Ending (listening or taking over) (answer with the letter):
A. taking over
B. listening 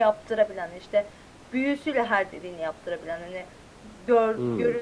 B